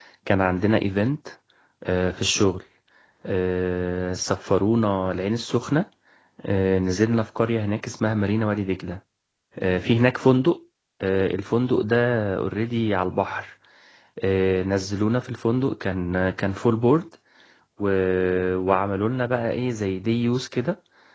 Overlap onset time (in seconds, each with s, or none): none